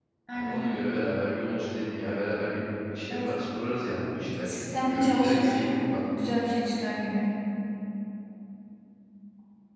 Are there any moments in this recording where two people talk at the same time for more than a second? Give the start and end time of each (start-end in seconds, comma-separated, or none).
4.5-5.7